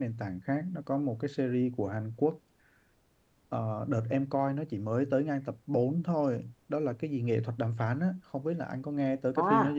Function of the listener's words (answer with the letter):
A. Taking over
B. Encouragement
A